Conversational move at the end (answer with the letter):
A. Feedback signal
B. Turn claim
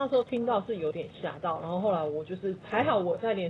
A